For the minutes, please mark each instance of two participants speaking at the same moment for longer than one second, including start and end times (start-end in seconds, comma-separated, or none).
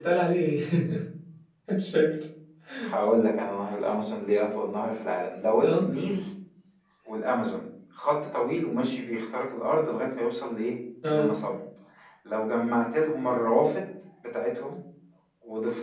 none